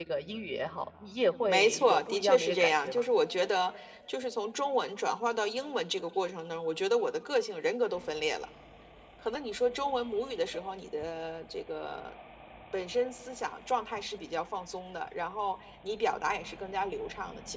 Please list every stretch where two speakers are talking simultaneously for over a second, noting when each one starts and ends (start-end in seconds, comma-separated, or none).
1.5-3.0